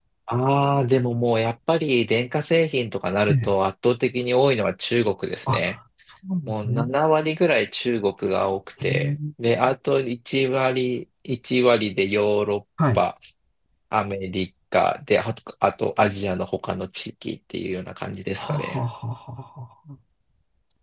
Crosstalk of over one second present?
No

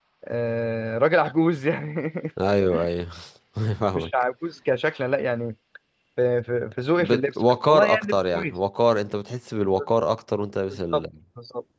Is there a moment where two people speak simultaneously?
Yes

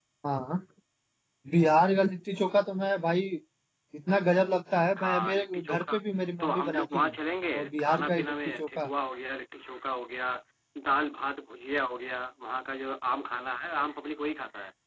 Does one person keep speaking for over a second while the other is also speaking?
Yes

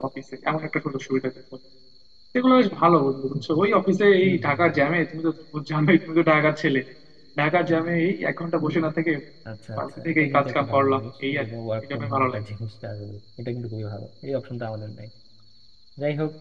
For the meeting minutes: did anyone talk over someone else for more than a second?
Yes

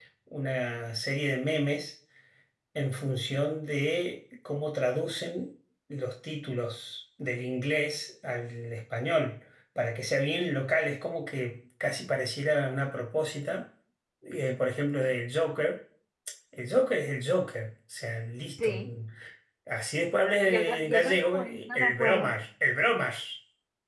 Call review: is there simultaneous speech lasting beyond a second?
Yes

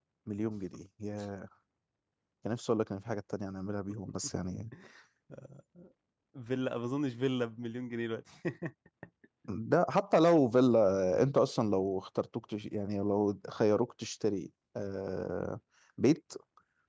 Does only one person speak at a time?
Yes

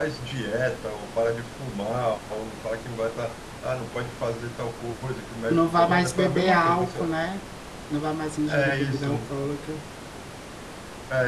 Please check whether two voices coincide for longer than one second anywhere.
Yes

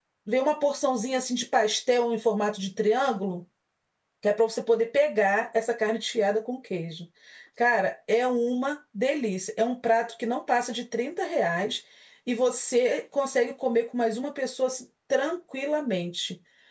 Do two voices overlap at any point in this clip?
No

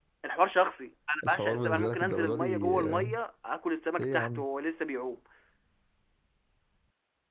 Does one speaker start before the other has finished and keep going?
Yes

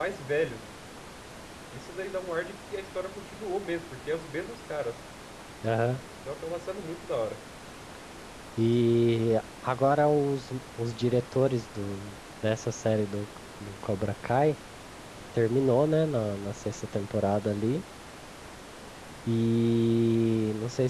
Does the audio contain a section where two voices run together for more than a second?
No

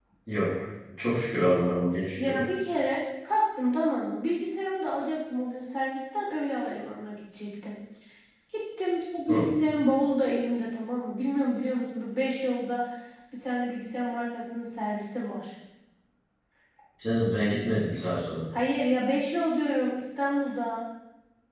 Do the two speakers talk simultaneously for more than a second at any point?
No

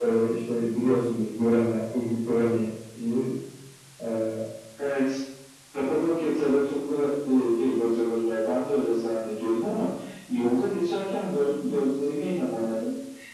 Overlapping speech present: No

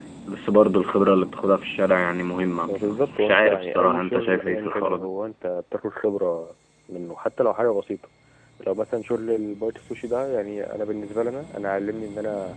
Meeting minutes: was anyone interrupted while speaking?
Yes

